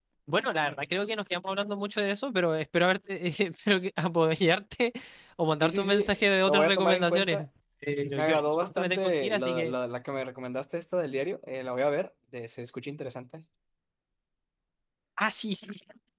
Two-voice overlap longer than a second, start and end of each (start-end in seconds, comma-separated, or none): 5.6-7.4, 8.2-9.7